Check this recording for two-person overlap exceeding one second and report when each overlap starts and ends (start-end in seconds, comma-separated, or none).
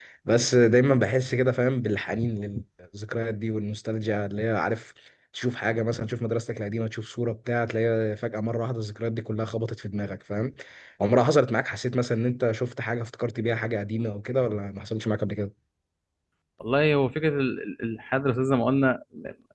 none